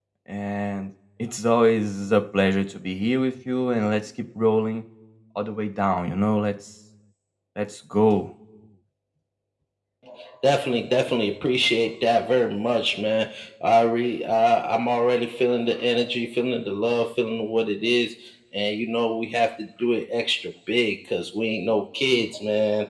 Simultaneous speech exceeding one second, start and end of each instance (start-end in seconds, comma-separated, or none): none